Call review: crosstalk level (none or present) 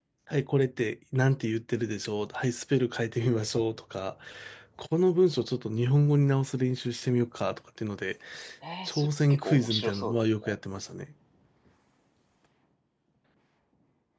present